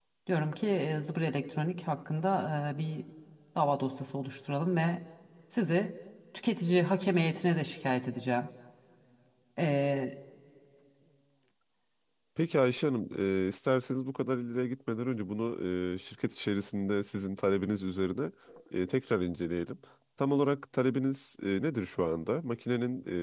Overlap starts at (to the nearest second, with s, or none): none